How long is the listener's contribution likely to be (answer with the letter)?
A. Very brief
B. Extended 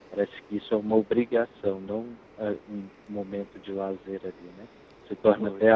A